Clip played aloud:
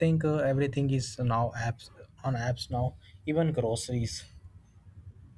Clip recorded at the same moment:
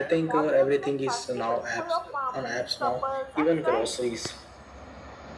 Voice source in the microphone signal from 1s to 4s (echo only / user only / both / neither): both